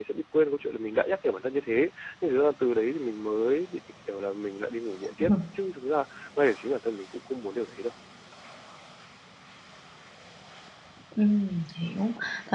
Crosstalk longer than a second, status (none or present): none